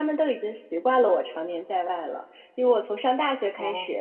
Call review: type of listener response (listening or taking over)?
listening